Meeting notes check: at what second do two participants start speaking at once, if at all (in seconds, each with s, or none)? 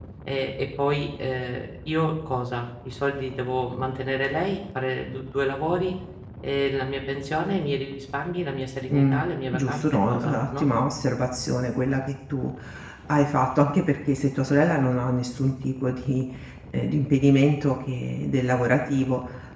8.9 s